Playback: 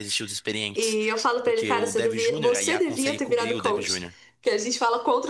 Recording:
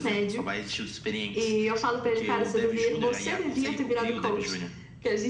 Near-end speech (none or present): none